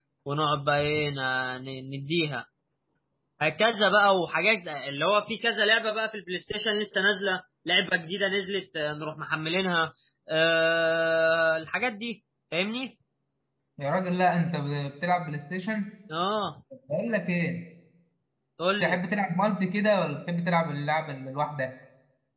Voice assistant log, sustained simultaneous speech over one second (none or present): none